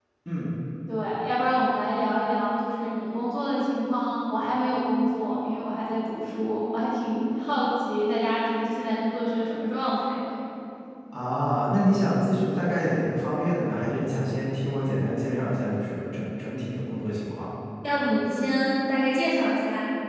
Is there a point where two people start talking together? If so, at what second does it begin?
none

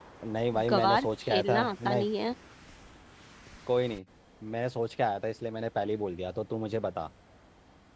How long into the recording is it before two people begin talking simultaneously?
0.7 s

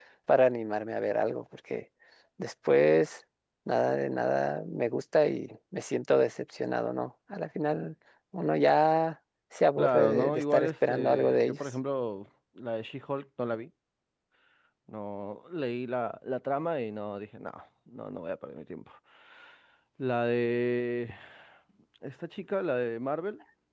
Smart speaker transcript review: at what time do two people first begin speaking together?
9.8 s

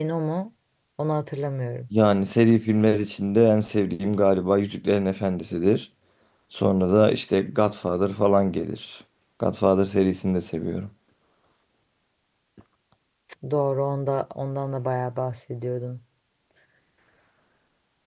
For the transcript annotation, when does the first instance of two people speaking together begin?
none

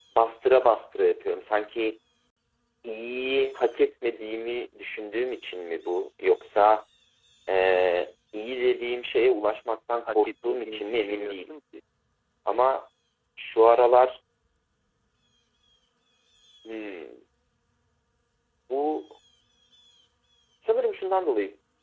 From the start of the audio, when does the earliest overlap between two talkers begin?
10.1 s

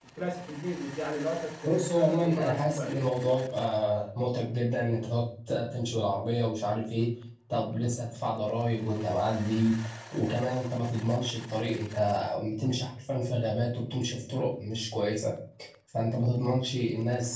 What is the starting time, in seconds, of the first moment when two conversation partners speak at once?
1.6 s

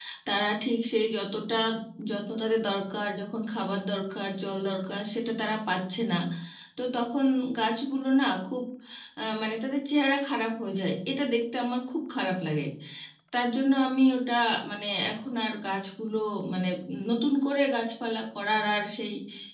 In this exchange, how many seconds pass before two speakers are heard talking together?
none

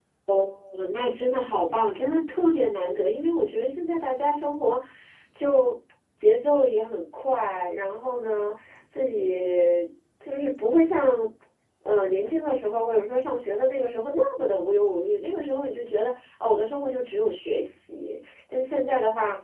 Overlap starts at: none

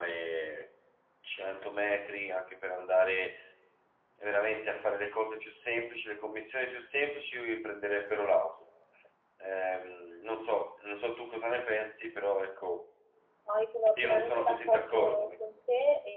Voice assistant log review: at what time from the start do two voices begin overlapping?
14.0 s

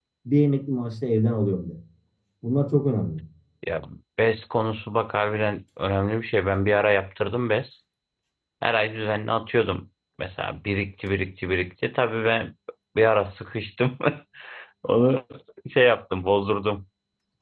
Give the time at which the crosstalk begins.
none

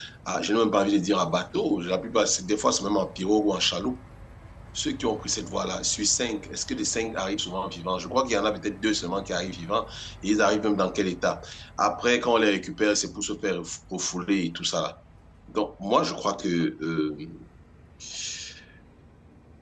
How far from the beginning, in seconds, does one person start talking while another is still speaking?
none

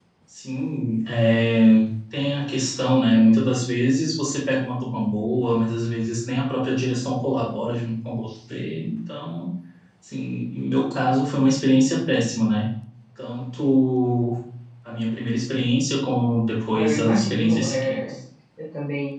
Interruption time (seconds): 16.7 s

